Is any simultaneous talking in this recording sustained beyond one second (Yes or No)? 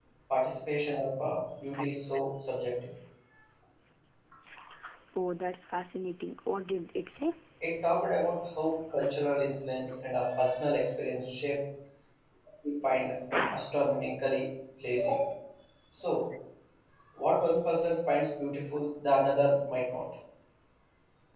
No